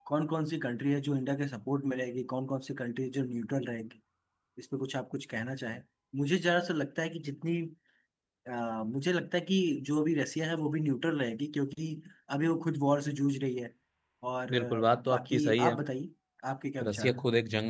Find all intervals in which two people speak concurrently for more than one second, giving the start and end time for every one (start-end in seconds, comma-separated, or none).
14.6-15.8